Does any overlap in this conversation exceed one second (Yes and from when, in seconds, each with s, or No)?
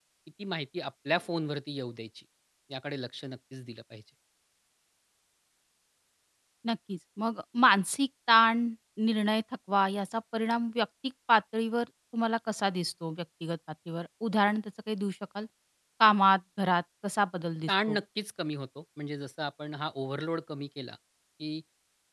No